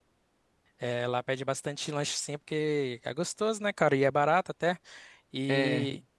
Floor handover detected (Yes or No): No